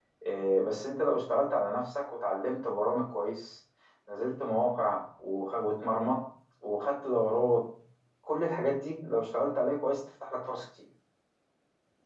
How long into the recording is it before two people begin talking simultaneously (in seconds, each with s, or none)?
none